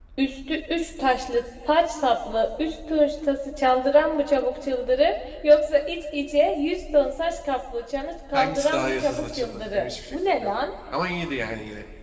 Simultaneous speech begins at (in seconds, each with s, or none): 8.3 s